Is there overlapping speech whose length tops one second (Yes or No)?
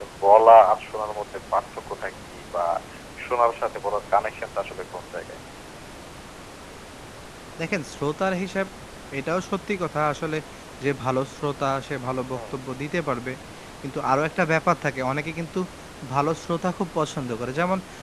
No